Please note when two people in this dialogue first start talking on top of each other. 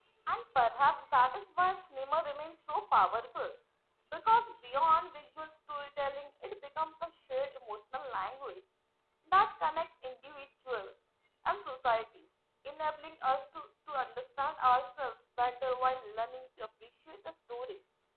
none

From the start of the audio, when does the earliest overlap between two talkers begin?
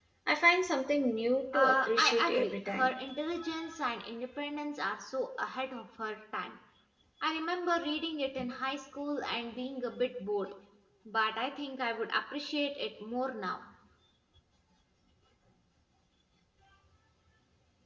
1.5 s

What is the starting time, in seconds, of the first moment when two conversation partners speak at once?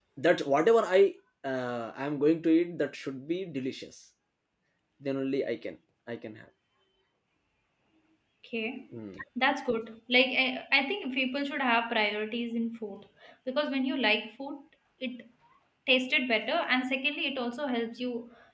none

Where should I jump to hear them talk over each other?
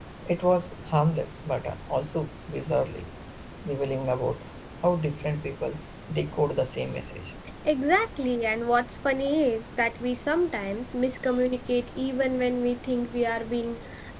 none

